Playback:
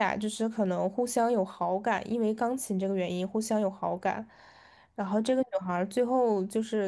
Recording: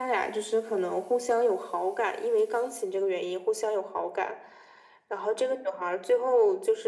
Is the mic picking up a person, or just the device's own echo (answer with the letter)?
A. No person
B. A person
A